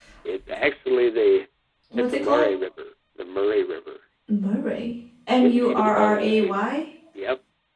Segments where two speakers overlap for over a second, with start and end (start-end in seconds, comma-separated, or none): 5.4-6.7